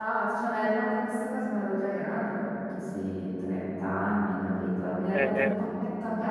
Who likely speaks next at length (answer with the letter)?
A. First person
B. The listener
A